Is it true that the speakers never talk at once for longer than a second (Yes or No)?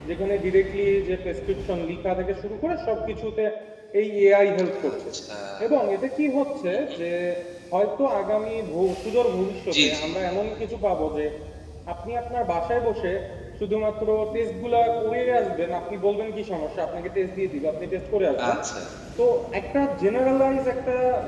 Yes